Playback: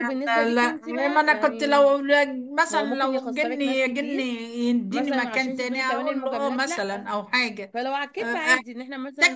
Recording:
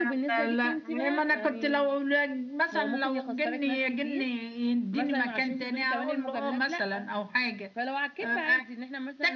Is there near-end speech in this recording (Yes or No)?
No